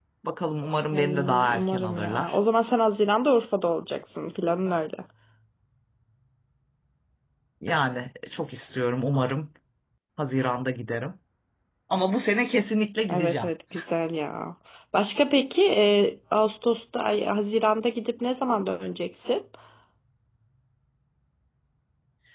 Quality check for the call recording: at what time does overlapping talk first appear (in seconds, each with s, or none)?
0.9 s